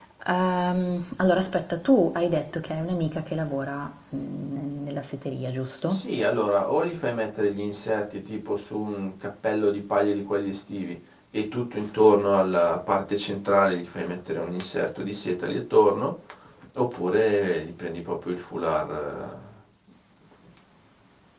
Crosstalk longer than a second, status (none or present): none